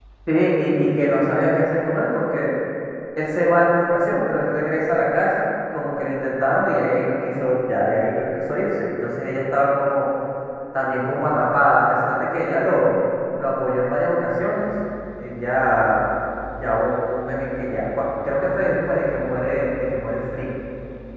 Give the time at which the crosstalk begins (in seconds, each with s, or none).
none